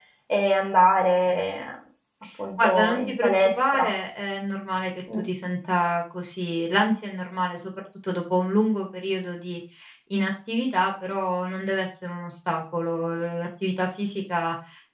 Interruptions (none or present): present